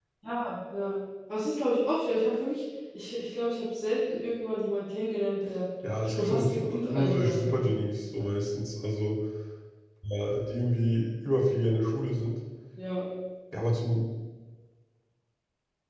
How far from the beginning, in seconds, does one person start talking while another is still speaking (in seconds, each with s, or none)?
5.8 s